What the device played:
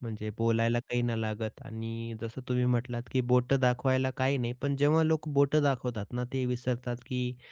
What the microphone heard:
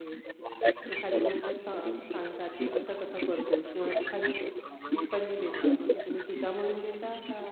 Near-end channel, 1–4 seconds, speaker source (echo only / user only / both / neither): both